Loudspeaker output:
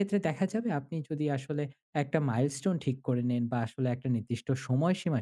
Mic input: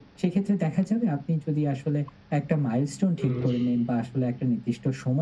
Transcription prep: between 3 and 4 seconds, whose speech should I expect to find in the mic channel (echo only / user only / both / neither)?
both